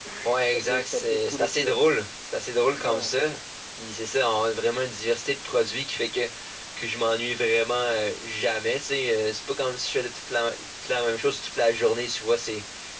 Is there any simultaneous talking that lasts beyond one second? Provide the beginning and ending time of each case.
0.5-1.8

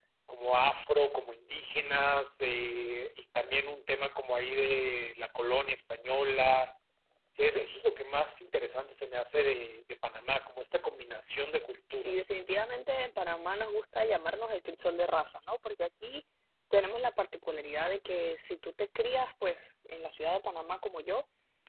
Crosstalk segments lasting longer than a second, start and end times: none

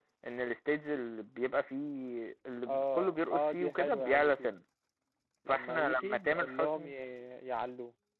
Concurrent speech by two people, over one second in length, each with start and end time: 2.7-4.5, 5.5-6.9

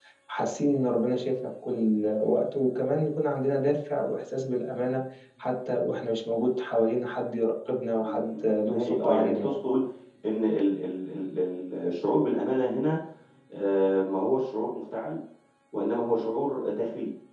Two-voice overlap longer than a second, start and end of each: 8.0-9.6

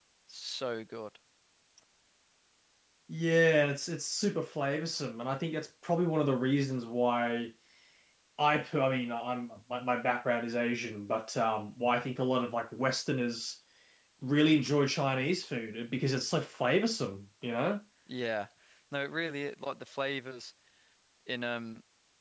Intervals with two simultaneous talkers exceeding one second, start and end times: none

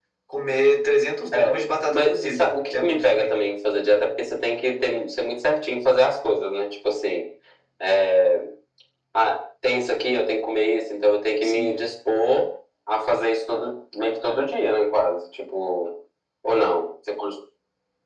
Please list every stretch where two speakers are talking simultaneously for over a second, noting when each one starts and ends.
1.9-3.4

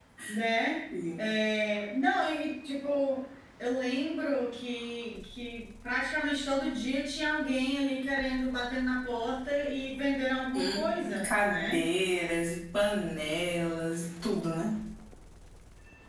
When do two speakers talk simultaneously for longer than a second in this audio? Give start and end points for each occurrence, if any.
10.6-11.8

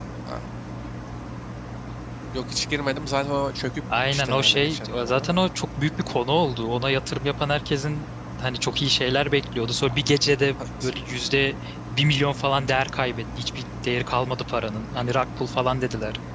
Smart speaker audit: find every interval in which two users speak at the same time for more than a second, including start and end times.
4.1-5.4

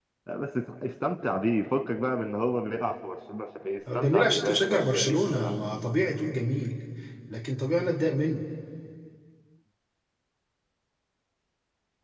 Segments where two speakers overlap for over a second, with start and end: 3.9-5.5

